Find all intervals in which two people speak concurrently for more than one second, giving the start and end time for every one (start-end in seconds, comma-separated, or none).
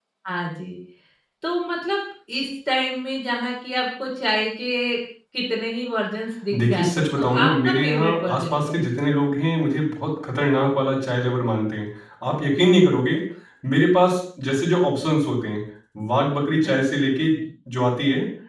6.6-8.8